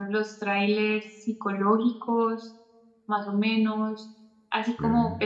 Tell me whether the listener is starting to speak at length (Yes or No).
No